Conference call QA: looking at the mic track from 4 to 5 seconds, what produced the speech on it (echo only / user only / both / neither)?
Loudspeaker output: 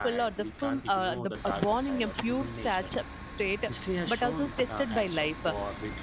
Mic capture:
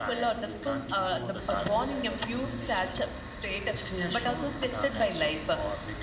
echo only